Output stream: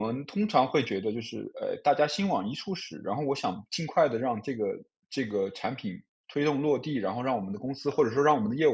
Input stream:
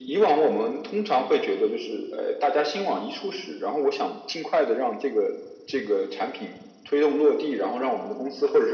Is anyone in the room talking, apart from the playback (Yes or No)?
No